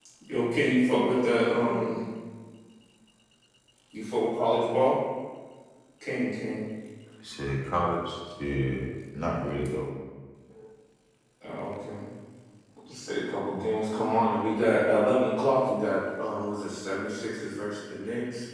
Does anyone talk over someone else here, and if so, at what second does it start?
0.7 s

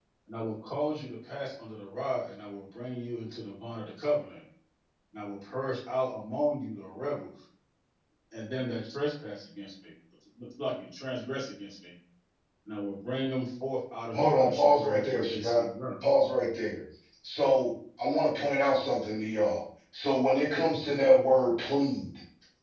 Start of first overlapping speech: 14.1 s

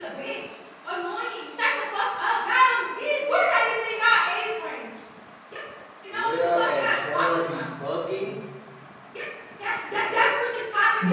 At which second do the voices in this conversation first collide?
6.1 s

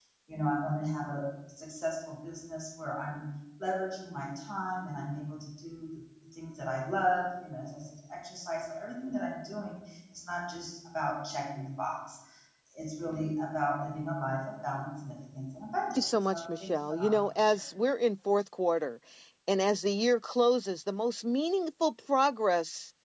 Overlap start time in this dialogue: 15.9 s

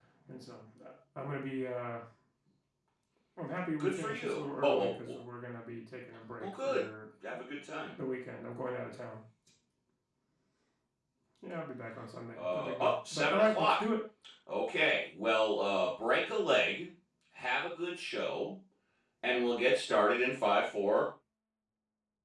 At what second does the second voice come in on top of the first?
3.8 s

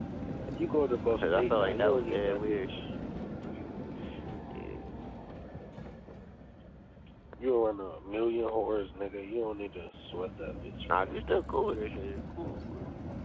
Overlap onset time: 1.2 s

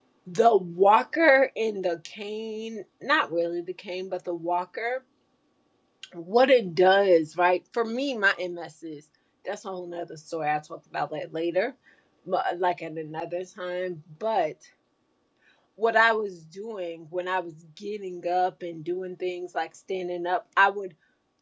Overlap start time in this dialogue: none

